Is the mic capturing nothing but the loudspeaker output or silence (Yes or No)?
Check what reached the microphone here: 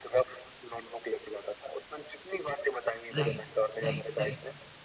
No